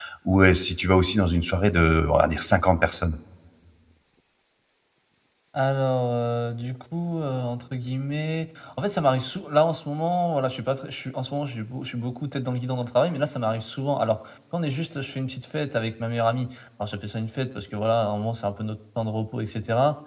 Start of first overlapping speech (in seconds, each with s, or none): none